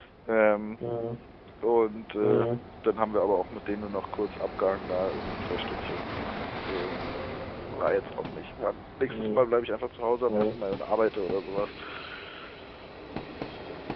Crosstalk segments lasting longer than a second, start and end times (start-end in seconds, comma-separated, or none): none